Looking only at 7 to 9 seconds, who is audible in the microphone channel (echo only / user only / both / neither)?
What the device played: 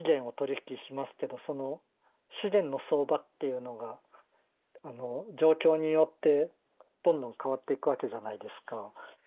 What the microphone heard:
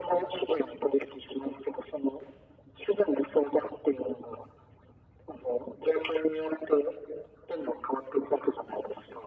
echo only